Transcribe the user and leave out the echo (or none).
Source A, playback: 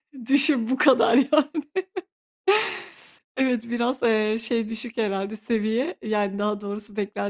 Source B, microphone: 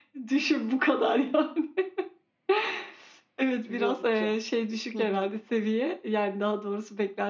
Yorucu. Hı hı.